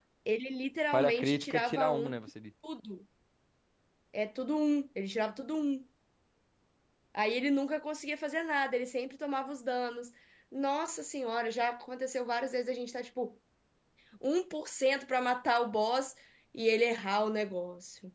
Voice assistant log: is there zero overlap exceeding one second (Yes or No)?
No